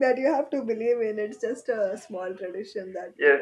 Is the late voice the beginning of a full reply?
Yes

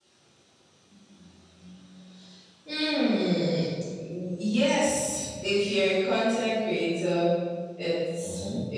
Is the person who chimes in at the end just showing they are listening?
Yes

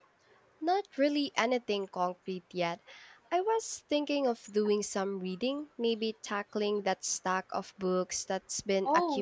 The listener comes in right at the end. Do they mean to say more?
Yes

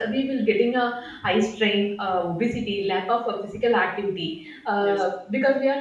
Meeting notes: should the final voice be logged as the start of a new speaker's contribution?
No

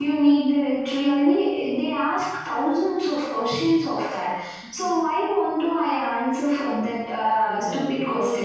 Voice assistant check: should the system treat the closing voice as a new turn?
Yes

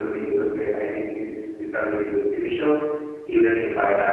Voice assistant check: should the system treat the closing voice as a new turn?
No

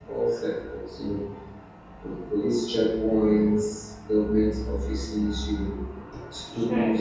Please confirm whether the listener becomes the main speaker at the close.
No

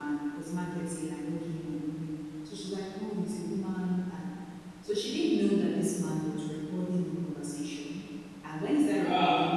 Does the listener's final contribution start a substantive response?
No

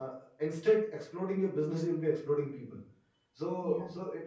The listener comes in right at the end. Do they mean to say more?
No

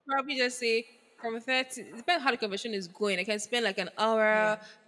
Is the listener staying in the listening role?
Yes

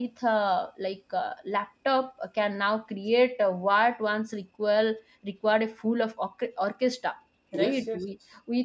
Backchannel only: Yes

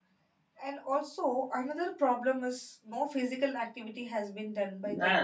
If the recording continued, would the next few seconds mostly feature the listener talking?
Yes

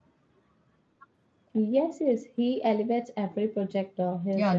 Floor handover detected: Yes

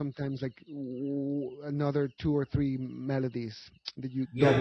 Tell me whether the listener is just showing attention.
No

